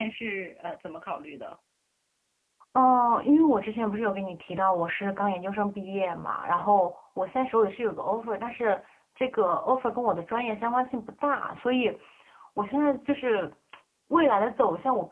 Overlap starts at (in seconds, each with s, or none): none